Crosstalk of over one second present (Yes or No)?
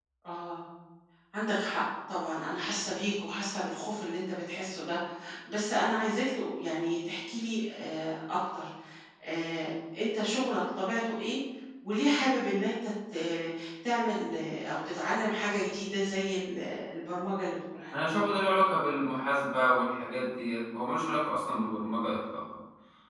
No